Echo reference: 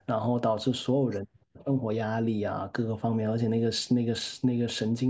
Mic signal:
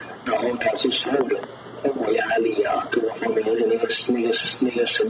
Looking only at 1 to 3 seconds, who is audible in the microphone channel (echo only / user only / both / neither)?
echo only